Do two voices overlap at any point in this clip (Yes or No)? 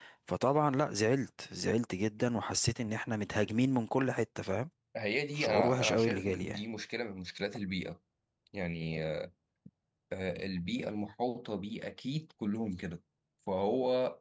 Yes